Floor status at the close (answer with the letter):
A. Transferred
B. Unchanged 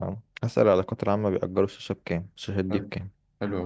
A